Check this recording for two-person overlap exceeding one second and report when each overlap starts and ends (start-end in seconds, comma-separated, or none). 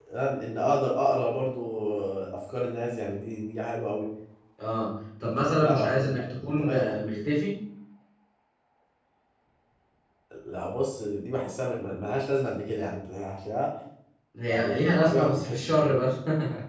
5.2-7.2, 14.5-16.0